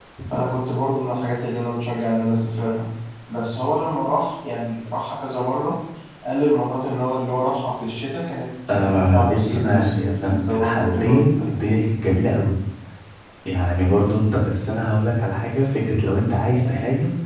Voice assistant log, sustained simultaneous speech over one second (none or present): present